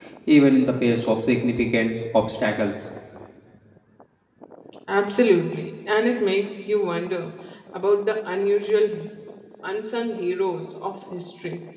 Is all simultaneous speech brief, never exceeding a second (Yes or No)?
Yes